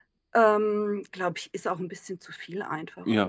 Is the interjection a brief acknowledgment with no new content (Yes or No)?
No